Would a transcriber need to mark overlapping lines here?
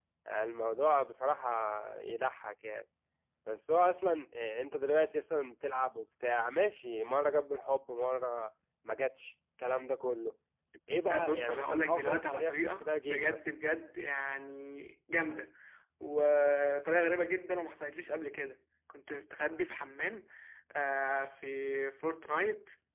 Yes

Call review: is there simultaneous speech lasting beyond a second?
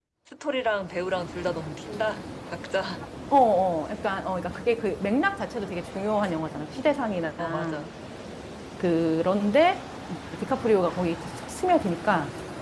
No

